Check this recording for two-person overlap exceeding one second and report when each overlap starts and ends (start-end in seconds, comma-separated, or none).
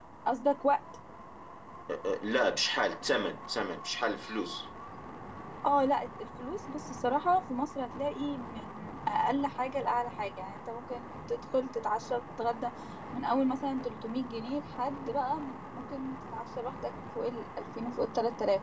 none